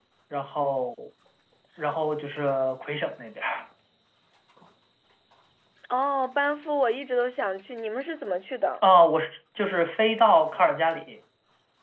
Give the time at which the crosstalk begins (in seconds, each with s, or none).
none